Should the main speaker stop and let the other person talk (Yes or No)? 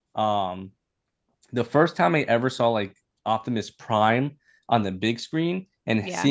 No